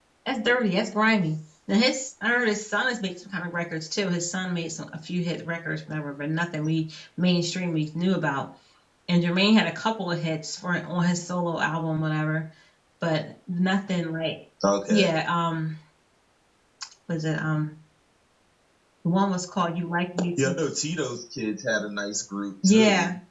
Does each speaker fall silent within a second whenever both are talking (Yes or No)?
Yes